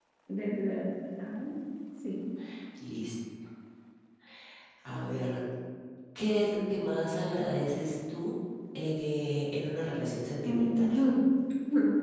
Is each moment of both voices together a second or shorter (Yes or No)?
Yes